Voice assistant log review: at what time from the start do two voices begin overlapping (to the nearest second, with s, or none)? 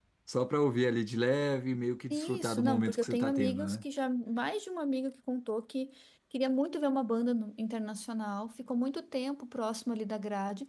2 s